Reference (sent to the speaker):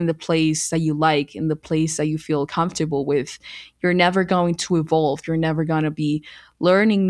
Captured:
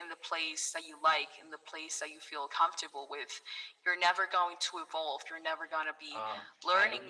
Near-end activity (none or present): present